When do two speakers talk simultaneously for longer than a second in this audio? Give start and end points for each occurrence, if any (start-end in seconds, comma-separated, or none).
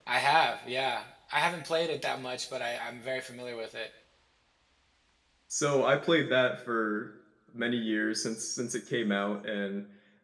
none